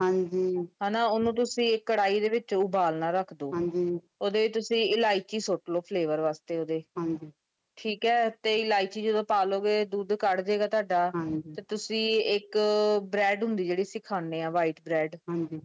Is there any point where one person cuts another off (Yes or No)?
No